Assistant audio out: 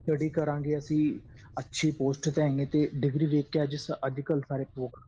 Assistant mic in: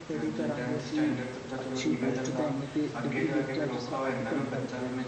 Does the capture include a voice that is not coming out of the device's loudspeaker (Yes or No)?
Yes